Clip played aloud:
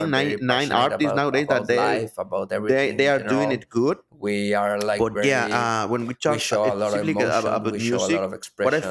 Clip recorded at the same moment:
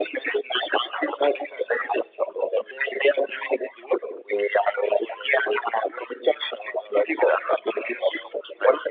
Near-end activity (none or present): none